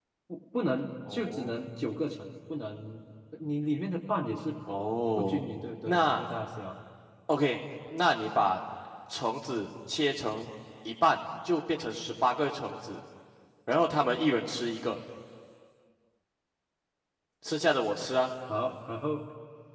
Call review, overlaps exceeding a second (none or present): none